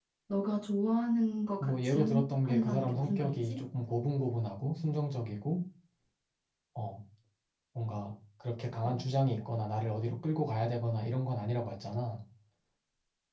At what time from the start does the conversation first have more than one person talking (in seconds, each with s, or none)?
1.6 s